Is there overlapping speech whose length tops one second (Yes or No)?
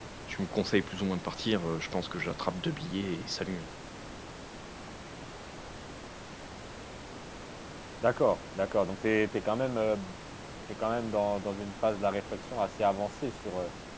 No